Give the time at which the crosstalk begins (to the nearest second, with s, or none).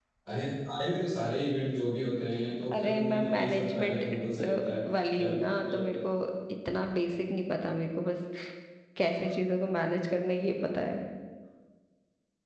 3 s